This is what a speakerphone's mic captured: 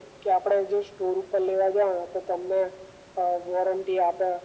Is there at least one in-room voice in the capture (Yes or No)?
No